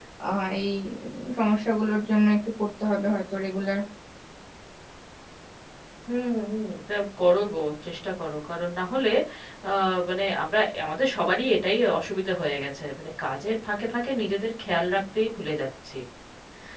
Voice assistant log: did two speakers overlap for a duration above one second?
No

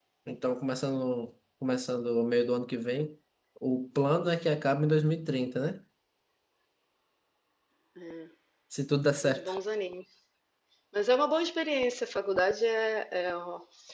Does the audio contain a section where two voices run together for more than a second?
No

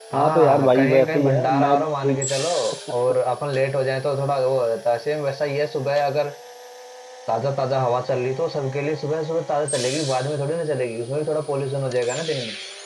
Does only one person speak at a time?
No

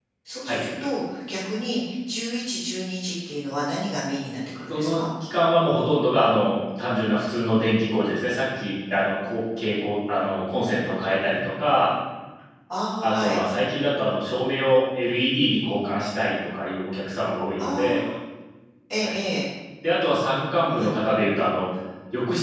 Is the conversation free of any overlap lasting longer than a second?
Yes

